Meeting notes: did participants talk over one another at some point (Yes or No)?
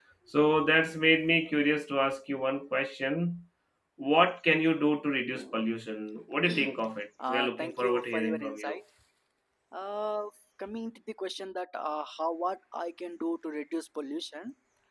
Yes